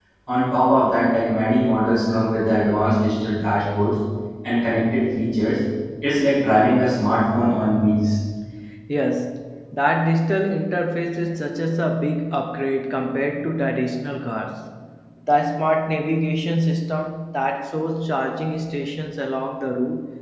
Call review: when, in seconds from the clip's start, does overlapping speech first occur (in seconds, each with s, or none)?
none